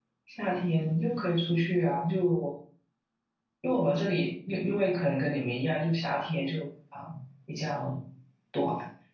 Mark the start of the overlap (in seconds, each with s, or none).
none